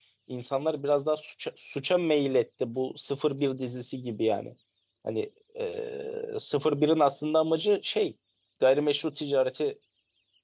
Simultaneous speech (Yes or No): No